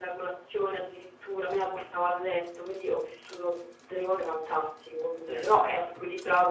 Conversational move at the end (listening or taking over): listening